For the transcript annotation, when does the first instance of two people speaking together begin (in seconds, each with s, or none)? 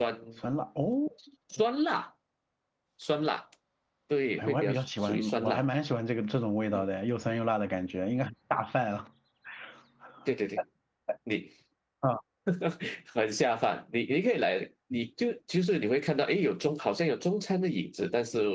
4.4 s